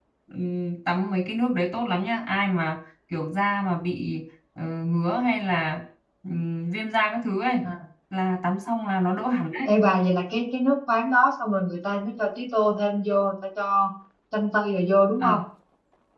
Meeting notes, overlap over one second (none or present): none